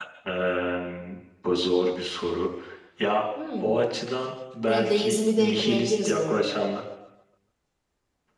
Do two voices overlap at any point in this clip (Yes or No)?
Yes